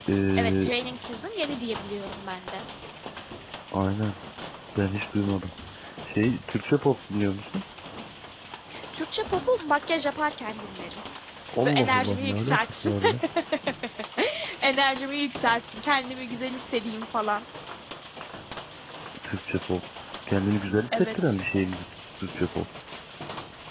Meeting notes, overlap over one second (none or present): present